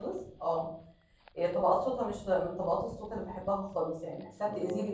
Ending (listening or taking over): listening